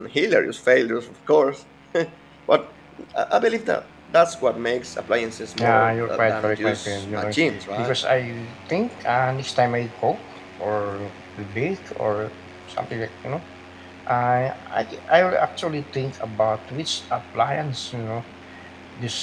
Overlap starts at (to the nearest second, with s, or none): 6 s